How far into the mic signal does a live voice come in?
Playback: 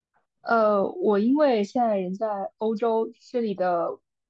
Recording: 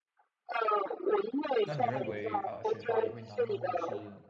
1.6 s

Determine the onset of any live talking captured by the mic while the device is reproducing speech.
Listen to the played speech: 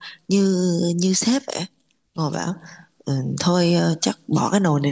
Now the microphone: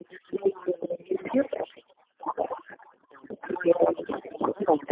none

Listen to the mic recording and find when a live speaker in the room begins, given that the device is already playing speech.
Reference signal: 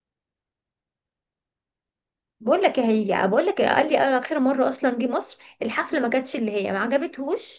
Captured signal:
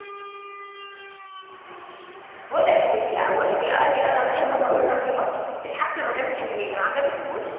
4.3 s

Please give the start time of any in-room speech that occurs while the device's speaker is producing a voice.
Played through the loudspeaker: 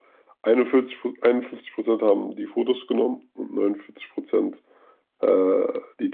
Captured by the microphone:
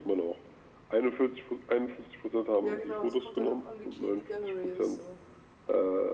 2.6 s

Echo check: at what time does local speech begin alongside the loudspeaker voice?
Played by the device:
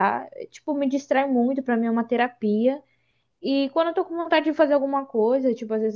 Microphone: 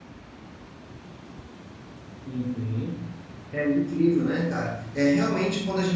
2.2 s

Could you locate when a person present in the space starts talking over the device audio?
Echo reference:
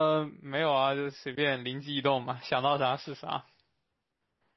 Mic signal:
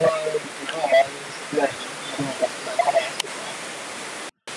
none

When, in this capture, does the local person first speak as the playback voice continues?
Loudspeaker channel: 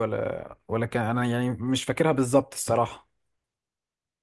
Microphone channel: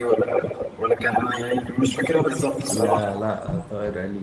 2.6 s

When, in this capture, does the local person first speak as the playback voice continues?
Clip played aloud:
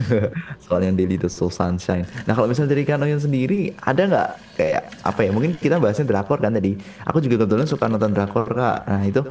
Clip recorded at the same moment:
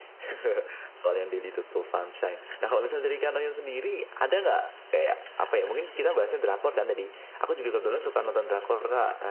none

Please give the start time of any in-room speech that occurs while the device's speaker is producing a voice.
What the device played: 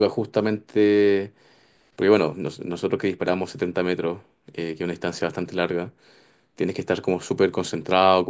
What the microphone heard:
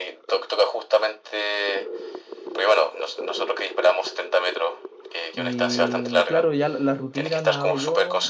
5.3 s

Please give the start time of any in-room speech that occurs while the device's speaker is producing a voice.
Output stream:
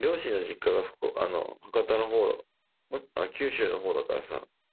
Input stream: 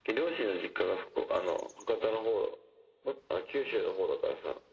none

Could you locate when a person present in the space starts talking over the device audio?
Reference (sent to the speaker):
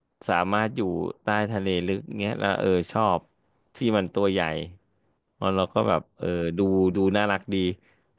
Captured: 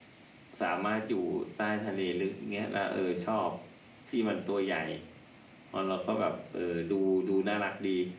none

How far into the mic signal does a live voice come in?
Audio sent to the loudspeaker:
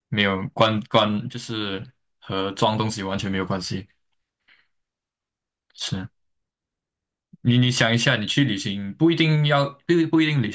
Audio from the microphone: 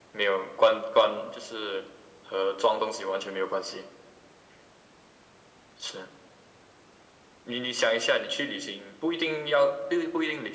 none

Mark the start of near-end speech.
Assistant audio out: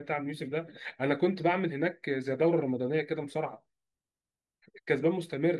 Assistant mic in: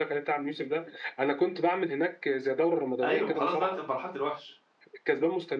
3.0 s

